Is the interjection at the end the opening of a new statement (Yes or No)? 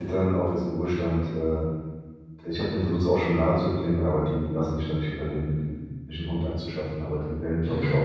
No